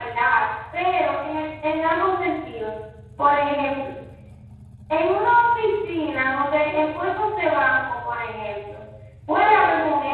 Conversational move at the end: listening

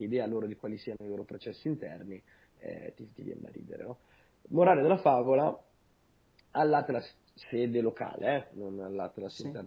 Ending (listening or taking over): listening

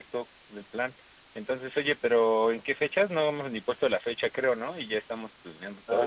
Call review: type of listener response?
taking over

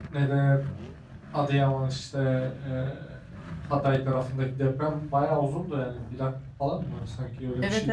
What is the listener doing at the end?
taking over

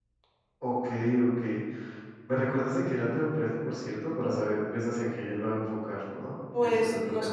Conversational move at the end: taking over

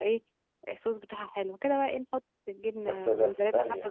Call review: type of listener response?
taking over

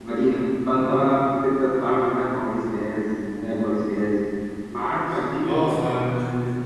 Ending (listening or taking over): taking over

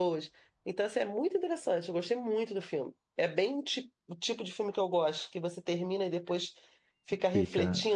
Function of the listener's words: taking over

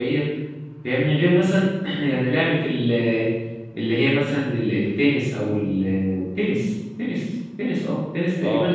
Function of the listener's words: taking over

